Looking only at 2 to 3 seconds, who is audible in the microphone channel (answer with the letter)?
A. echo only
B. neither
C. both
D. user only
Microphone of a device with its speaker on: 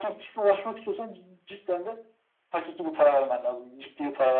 A